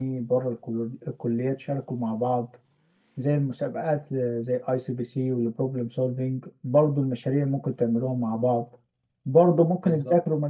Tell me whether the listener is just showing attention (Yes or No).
Yes